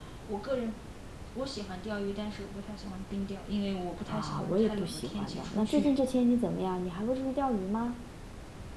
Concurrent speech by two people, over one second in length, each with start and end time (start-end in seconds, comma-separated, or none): 4.1-5.8